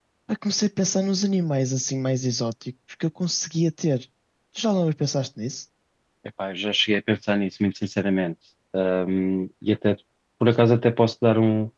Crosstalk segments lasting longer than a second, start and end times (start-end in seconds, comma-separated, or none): none